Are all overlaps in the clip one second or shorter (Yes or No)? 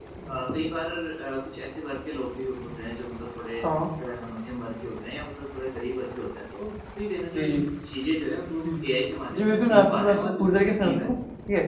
No